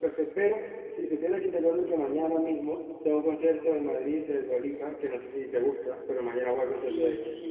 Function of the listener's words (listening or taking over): taking over